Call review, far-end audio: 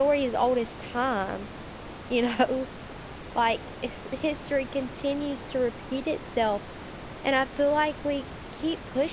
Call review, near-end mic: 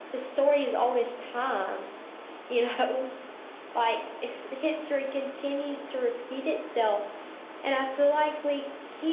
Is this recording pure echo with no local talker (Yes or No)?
Yes